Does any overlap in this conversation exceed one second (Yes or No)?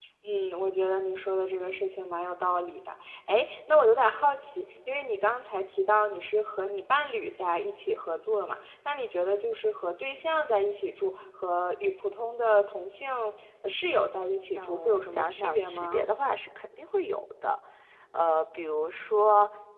Yes